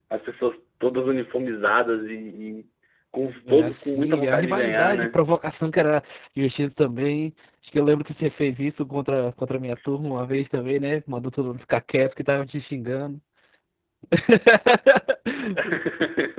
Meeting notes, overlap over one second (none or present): present